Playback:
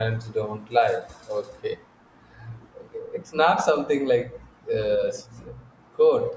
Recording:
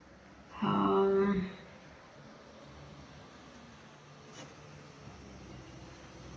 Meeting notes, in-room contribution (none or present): present